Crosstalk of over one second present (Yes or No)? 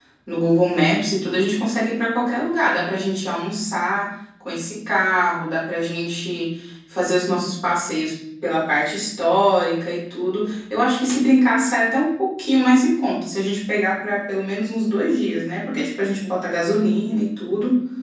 No